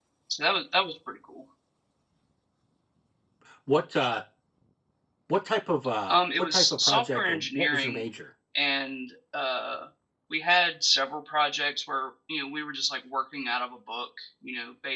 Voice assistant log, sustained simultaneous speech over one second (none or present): present